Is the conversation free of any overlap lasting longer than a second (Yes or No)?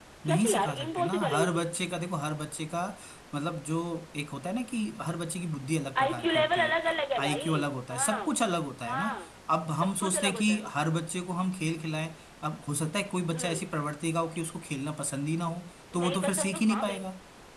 No